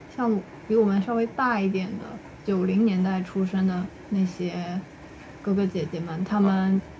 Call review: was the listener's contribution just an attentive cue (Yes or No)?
No